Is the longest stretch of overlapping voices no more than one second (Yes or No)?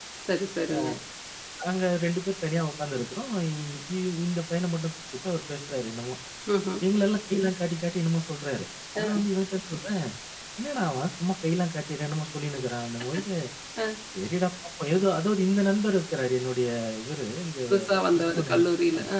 Yes